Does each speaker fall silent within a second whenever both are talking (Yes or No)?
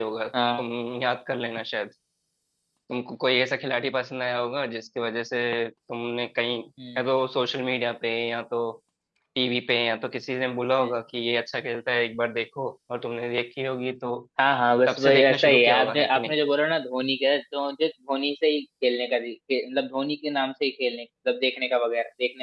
No